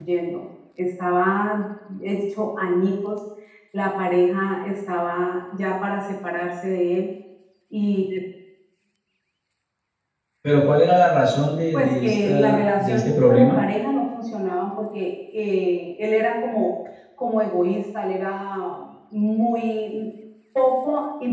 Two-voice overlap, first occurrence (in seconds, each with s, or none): 11.7 s